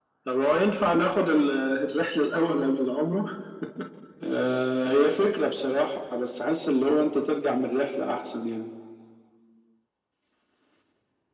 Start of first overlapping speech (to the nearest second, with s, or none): none